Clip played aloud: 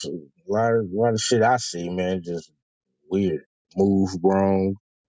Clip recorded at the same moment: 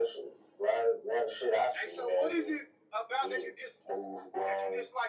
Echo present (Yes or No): Yes